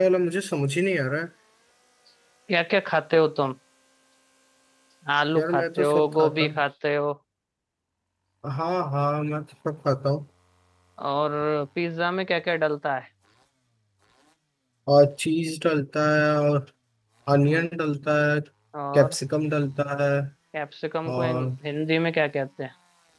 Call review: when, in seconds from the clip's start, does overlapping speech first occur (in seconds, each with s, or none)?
5.4 s